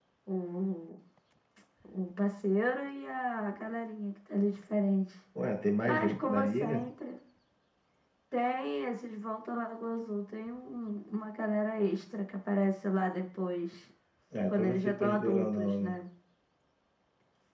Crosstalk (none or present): present